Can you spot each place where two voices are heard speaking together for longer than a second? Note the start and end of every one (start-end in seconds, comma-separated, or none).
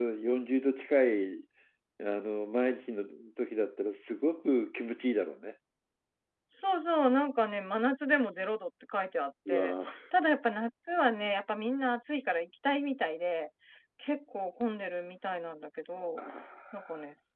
none